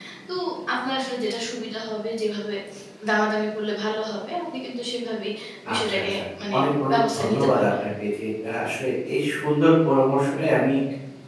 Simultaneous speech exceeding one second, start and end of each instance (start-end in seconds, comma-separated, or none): 6.6-7.8